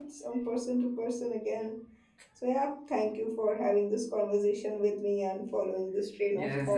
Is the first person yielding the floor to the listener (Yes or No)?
Yes